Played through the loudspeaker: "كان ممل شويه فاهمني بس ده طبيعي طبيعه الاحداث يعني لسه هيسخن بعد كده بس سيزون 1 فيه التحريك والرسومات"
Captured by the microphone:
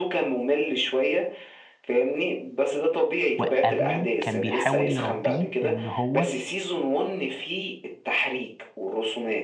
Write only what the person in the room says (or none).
وابوه كان بيحاول يربيه ان هو